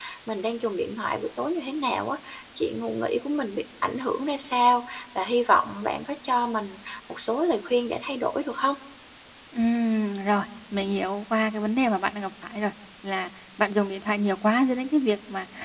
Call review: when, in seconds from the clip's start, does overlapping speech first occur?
none

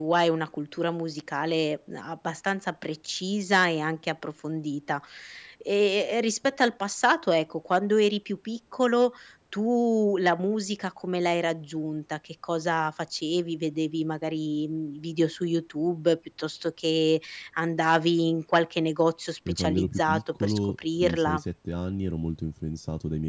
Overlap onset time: 19.5 s

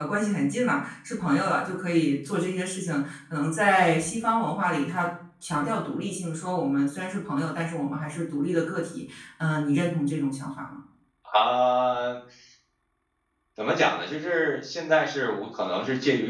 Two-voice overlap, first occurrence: none

